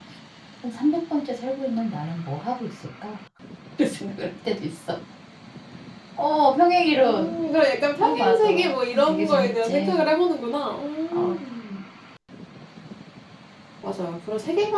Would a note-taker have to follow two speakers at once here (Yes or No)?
Yes